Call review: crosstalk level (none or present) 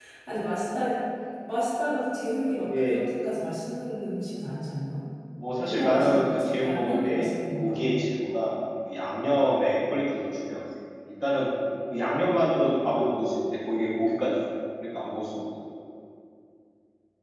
present